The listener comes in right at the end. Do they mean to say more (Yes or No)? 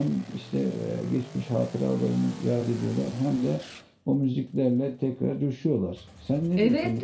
Yes